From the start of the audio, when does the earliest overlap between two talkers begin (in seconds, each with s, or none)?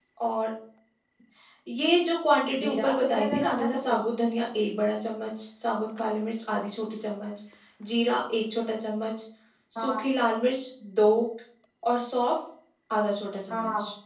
2.6 s